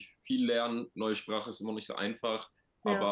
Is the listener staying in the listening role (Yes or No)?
Yes